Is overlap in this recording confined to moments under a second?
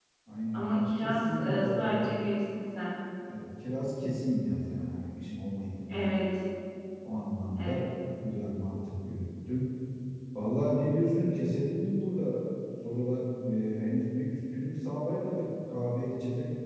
No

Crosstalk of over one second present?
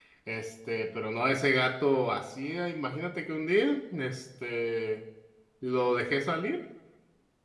No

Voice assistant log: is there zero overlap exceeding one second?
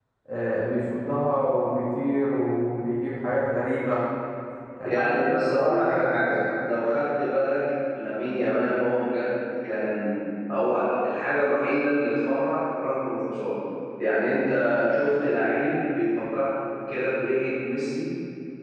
No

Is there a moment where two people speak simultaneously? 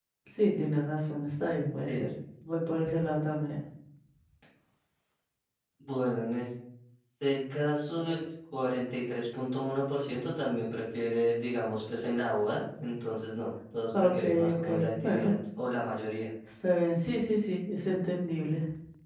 Yes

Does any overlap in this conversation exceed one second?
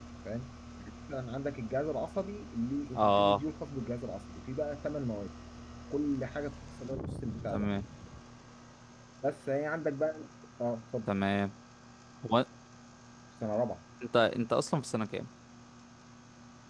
No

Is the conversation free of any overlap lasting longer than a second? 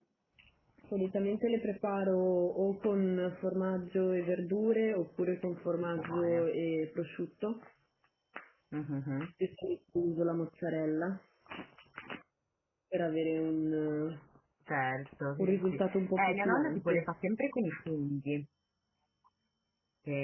No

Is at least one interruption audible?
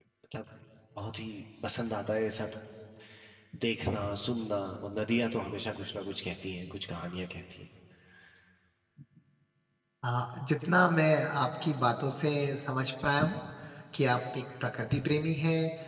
No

